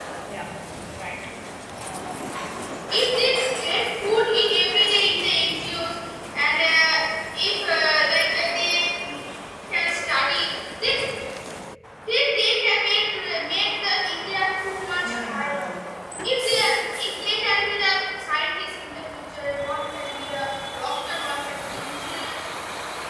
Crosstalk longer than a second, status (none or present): none